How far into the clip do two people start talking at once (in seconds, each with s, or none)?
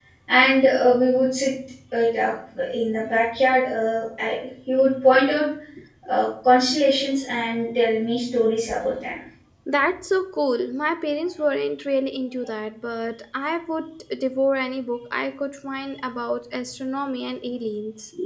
none